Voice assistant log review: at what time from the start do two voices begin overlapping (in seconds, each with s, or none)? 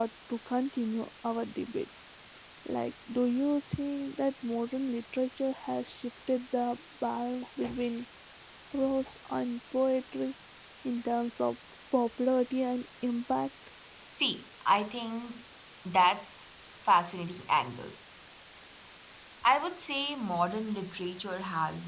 none